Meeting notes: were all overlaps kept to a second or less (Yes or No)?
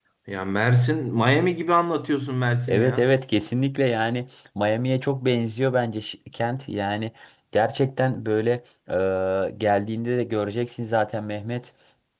Yes